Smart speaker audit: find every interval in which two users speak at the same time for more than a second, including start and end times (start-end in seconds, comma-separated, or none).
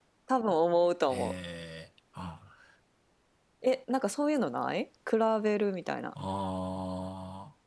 none